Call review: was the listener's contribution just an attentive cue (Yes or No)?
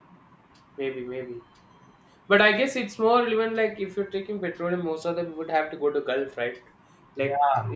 Yes